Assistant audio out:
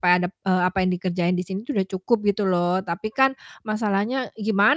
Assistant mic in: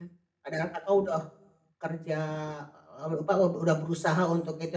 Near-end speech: present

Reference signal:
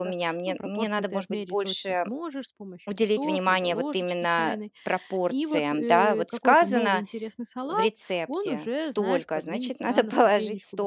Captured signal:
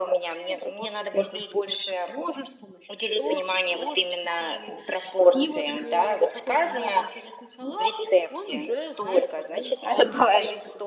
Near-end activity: none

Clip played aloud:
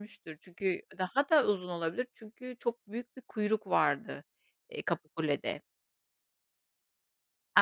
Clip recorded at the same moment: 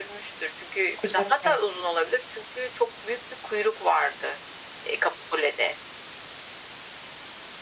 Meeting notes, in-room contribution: present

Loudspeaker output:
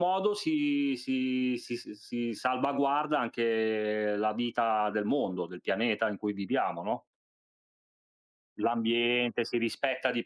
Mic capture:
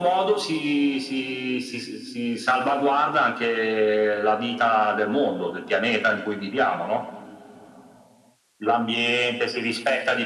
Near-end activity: none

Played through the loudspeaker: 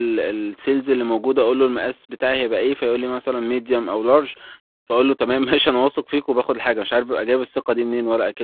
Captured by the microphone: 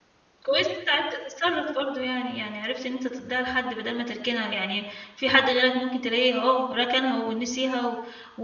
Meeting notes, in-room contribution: present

